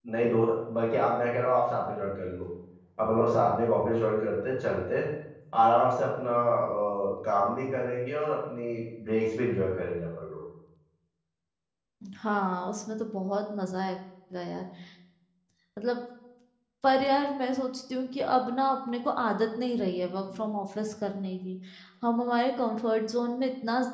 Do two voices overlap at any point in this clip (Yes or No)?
No